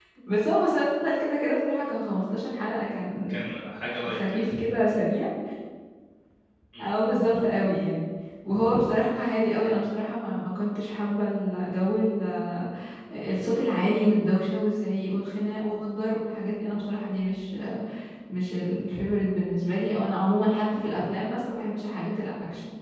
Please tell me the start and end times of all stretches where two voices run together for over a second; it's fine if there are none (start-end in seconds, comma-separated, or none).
none